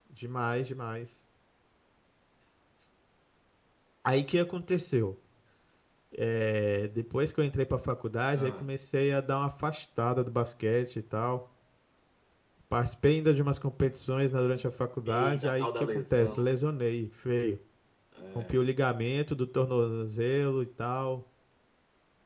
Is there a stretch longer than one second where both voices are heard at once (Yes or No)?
Yes